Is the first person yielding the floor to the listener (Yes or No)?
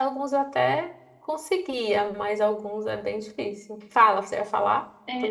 Yes